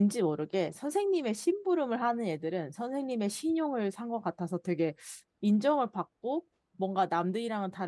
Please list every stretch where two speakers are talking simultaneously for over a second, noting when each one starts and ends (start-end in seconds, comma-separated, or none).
none